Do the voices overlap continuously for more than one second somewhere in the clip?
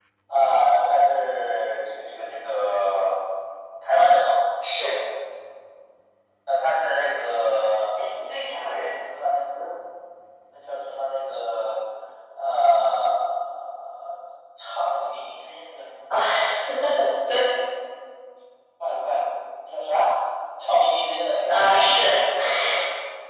No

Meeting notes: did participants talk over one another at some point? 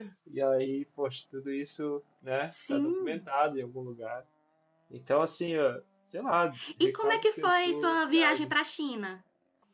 Yes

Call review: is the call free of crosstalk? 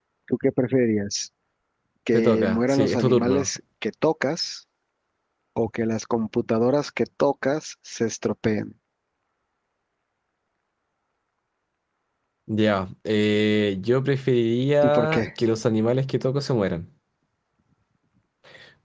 No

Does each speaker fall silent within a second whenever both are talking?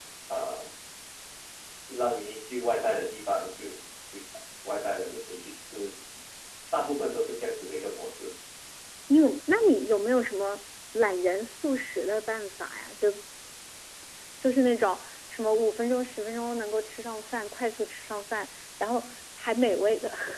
Yes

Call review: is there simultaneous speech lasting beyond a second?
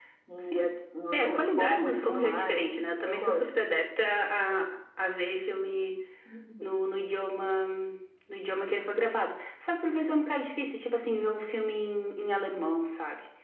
Yes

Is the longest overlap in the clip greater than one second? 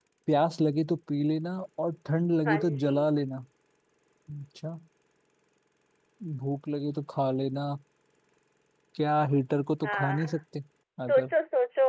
No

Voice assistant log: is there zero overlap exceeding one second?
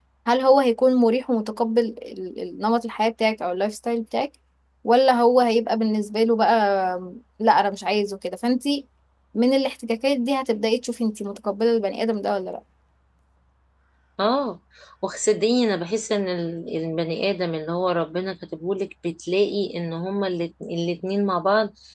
Yes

